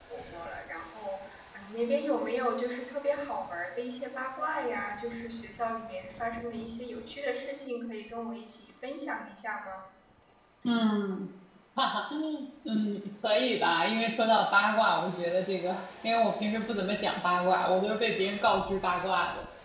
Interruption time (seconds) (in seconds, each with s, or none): none